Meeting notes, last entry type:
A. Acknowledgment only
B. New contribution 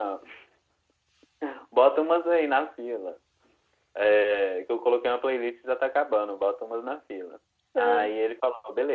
A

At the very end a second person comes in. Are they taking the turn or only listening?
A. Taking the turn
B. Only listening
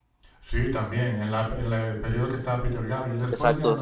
A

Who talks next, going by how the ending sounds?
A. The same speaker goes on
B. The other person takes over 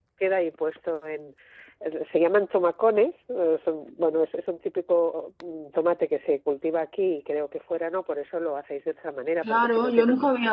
B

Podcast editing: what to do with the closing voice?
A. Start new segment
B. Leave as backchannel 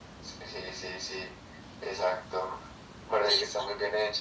B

